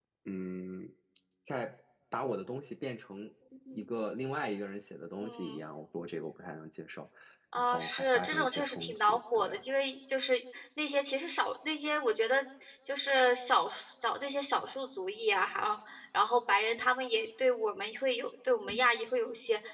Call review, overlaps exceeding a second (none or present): present